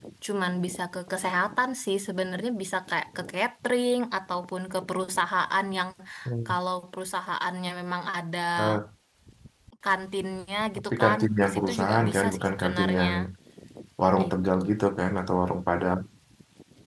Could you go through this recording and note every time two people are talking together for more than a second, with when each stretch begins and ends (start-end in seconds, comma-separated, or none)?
10.9-13.1